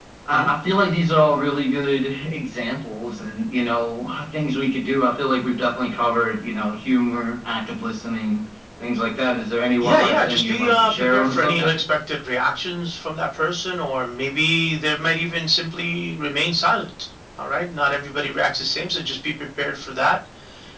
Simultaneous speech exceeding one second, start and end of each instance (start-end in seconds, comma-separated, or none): 9.8-11.7